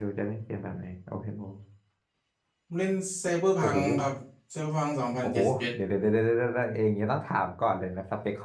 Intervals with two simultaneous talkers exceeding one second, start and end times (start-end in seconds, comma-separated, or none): none